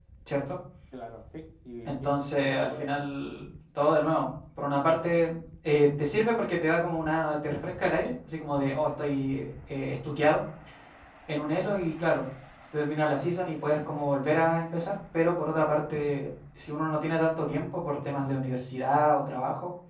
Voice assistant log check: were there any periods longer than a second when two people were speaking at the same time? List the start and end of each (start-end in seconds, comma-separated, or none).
1.9-3.1